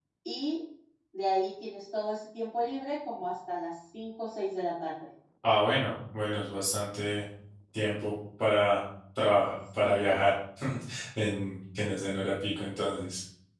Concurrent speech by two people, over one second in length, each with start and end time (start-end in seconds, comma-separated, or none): none